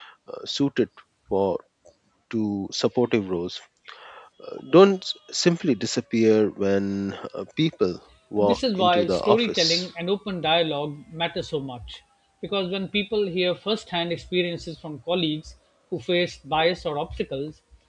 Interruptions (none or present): present